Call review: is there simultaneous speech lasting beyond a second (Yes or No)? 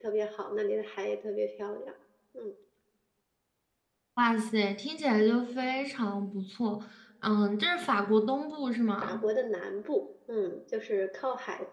No